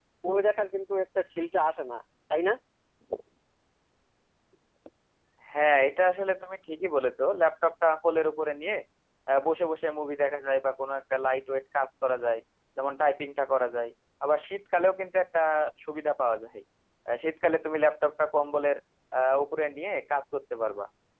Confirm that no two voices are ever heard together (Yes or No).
Yes